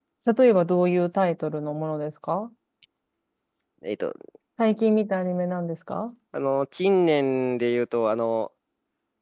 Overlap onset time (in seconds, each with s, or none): none